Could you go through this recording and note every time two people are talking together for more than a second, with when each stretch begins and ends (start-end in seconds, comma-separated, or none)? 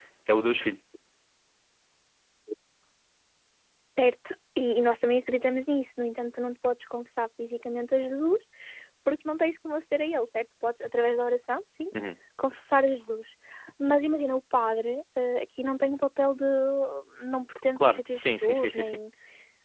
17.8-19.0